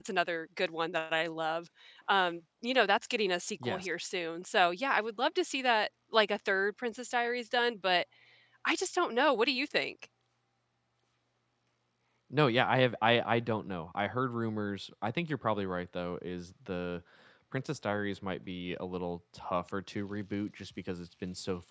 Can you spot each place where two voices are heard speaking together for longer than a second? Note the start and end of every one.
none

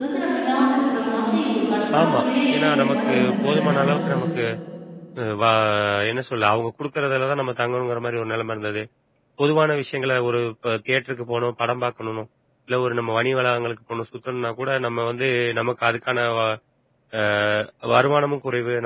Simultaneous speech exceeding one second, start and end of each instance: 2.6-4.2

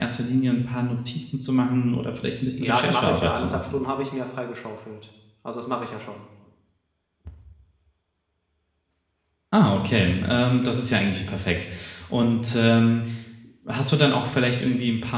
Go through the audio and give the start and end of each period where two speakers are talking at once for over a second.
2.5-3.8

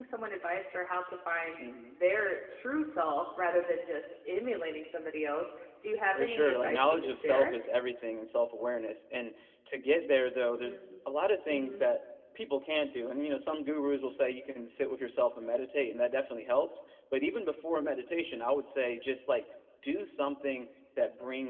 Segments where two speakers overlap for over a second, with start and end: 6.1-7.5

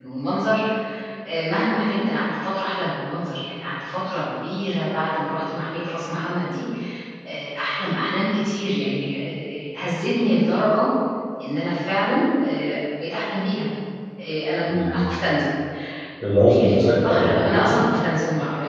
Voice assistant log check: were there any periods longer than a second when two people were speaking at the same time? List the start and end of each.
16.4-17.9

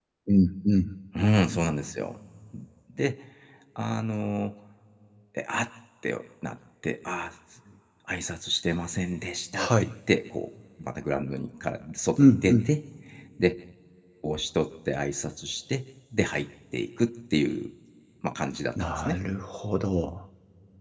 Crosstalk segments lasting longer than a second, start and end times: none

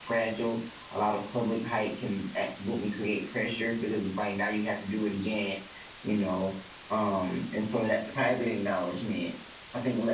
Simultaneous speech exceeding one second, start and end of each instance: none

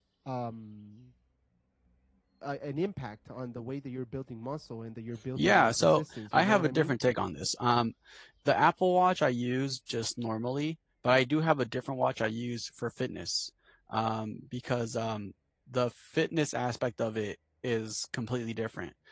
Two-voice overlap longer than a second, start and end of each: 5.4-7.0

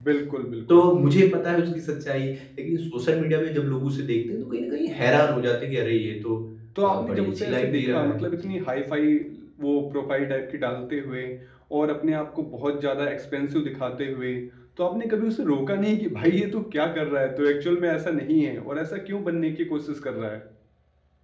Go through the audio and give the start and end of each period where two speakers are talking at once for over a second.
6.8-8.5

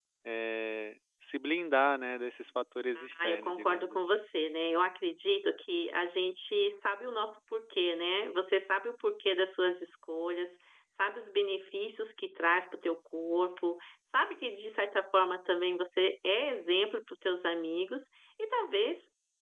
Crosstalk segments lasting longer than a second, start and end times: 3.0-4.2

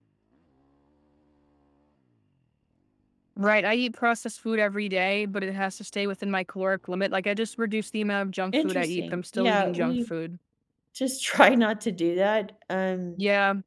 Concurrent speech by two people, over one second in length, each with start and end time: 8.6-9.9

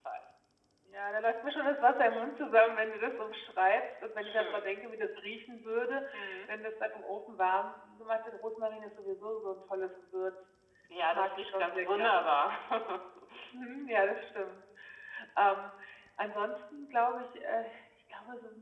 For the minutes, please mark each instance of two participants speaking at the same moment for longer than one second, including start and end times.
11.0-12.3

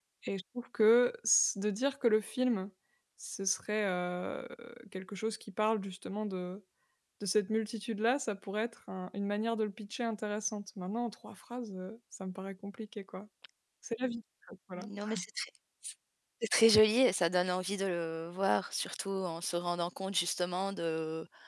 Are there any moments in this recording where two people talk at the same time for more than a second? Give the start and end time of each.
none

